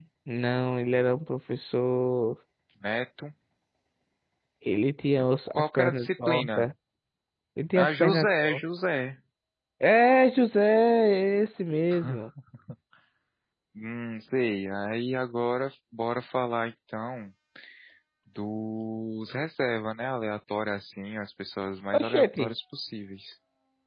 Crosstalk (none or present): present